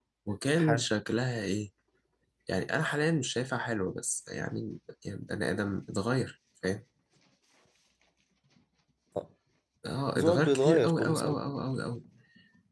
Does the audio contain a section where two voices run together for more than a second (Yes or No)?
Yes